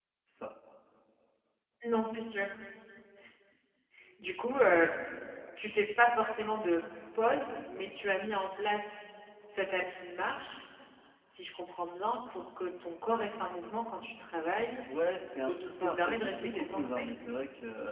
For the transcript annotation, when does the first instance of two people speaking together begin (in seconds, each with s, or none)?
15.5 s